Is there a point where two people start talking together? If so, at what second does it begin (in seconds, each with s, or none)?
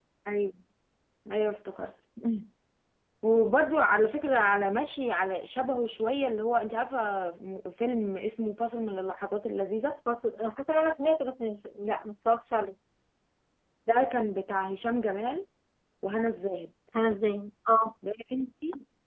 none